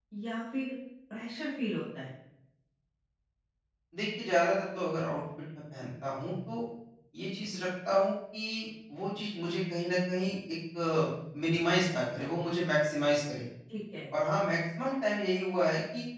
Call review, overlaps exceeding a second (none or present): none